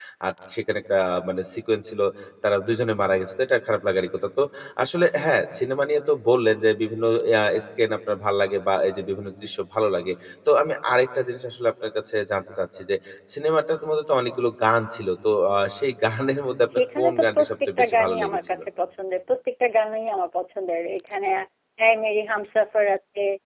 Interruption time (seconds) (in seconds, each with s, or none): 17.0 s